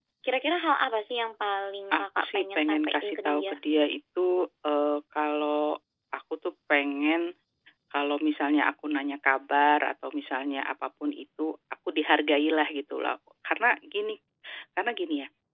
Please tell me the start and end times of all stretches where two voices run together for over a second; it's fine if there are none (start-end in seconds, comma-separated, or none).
1.9-3.6